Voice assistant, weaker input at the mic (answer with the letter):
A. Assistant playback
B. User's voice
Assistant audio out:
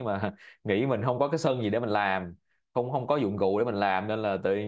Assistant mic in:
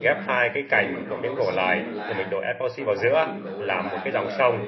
A